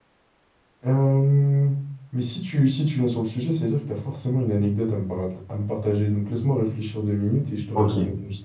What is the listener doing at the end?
taking over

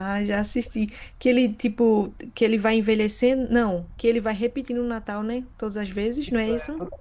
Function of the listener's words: taking over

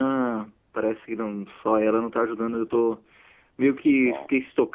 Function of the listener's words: listening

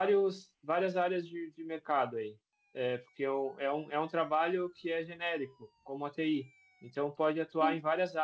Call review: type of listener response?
listening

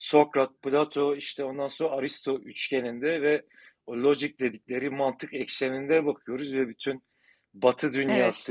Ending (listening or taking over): listening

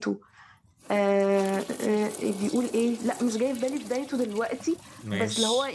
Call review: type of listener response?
listening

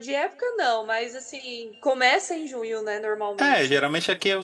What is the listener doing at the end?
taking over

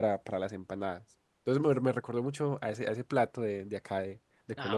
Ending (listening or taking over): taking over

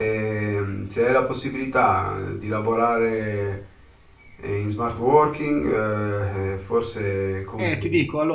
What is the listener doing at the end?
taking over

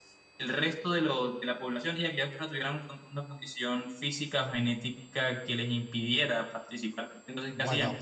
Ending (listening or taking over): taking over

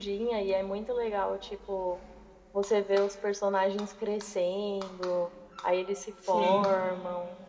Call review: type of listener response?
listening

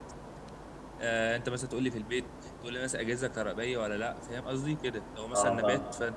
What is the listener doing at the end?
listening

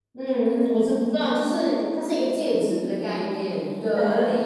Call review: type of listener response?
listening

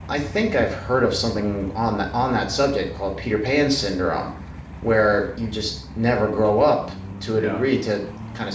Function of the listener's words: listening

